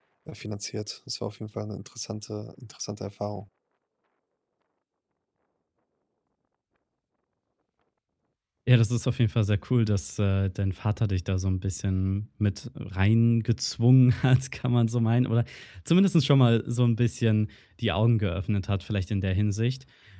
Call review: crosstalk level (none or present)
none